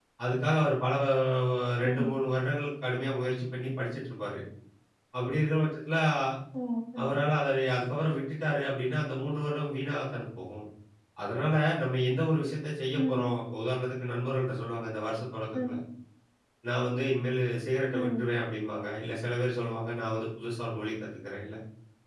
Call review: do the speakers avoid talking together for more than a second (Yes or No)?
Yes